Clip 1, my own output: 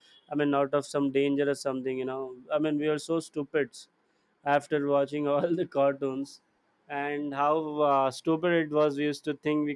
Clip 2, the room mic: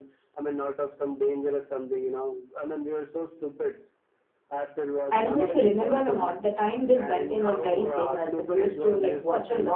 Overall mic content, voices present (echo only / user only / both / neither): both